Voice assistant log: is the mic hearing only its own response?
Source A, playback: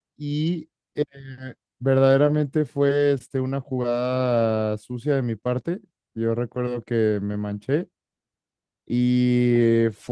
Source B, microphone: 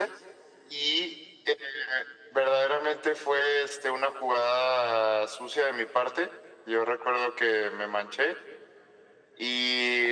Yes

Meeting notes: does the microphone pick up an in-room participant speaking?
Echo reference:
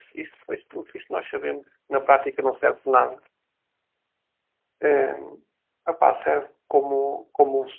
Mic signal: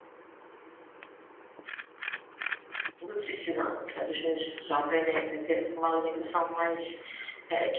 Yes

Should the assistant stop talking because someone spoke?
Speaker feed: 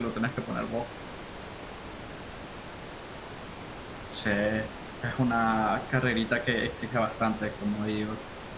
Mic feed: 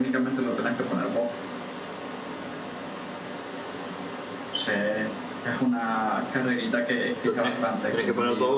Yes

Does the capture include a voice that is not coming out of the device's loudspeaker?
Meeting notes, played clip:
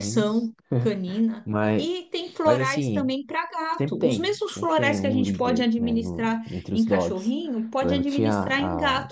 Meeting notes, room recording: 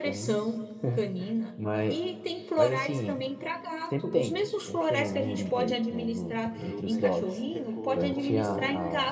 Yes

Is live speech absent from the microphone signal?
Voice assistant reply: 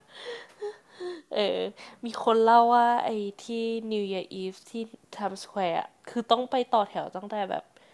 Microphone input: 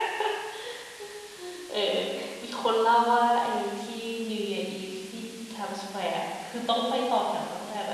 Yes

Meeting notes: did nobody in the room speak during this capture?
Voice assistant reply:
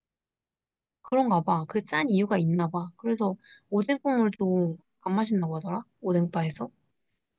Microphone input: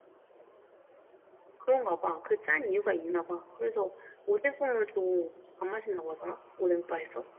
Yes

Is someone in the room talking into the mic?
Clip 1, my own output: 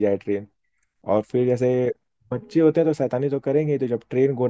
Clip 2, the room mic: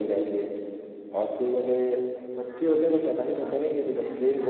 Yes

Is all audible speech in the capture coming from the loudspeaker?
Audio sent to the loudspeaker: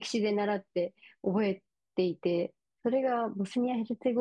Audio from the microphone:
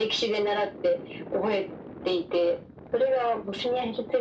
Yes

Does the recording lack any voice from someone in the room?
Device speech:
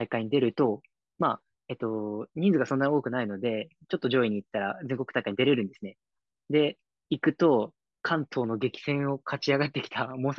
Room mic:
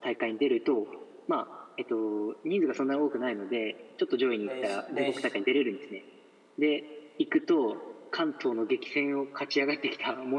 No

